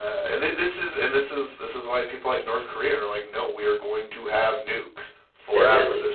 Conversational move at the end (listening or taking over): listening